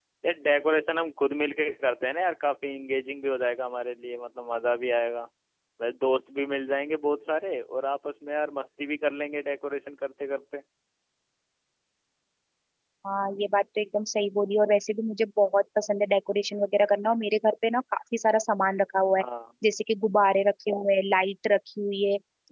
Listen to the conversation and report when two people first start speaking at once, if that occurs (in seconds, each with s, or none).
none